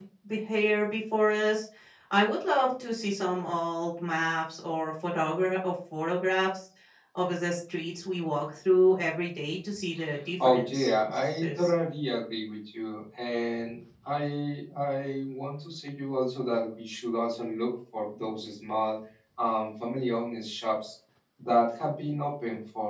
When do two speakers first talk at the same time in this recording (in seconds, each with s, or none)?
10.4 s